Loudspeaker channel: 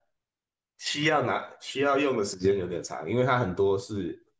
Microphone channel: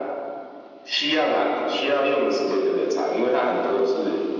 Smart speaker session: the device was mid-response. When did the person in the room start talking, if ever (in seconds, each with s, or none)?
none